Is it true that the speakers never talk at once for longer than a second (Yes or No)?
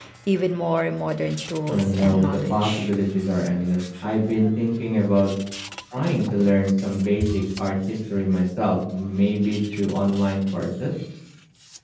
No